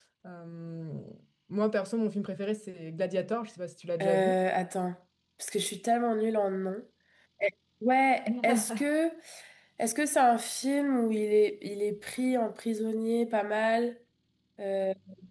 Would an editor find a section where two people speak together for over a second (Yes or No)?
No